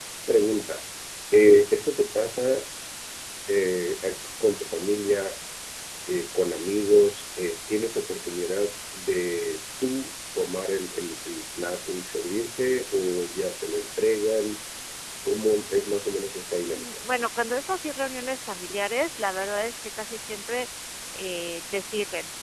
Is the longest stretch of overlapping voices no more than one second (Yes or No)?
Yes